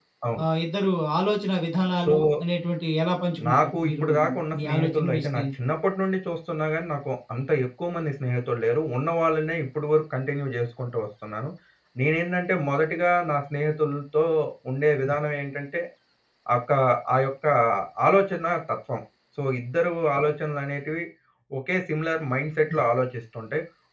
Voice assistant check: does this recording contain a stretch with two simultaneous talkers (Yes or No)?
Yes